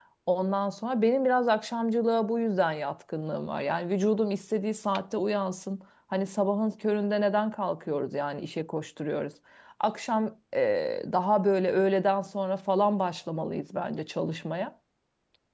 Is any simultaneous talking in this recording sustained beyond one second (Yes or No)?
No